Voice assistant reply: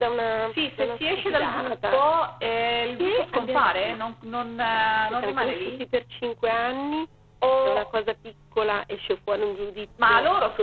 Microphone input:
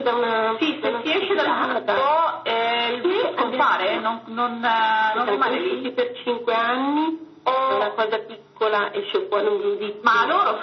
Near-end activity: none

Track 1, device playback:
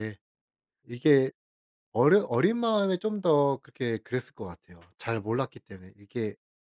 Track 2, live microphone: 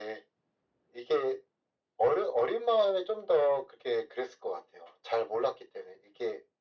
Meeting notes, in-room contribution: none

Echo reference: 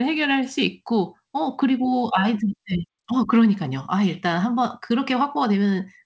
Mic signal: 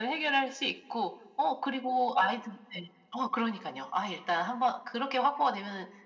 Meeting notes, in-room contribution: none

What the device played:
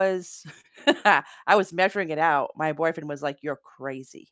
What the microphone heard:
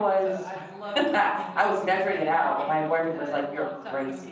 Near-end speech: present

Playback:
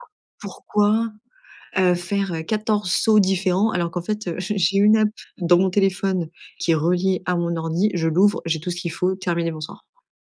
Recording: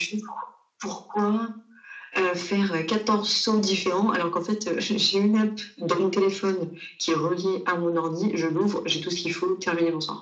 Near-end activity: none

